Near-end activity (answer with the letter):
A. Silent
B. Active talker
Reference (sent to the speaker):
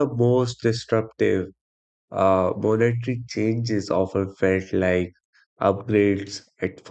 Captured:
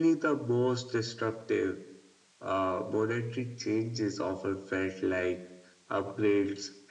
A